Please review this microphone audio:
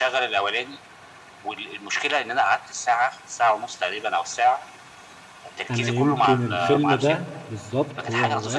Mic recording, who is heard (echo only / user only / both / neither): both